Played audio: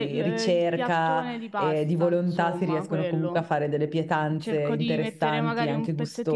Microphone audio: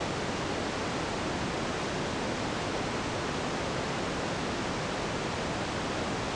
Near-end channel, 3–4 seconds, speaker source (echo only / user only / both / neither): neither